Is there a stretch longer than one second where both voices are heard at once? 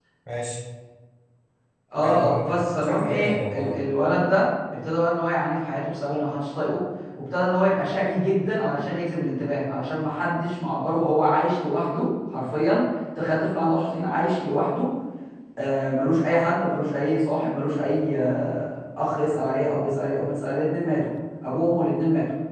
Yes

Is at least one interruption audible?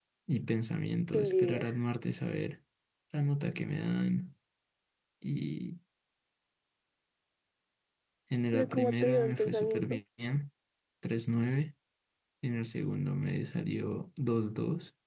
Yes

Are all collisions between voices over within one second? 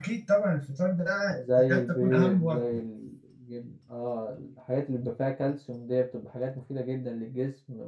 No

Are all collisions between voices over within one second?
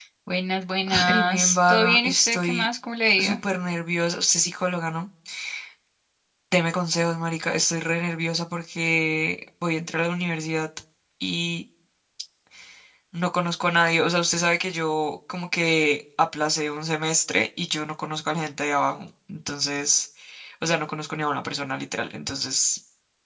No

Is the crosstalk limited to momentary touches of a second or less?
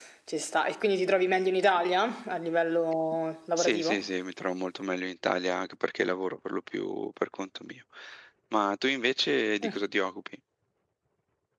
Yes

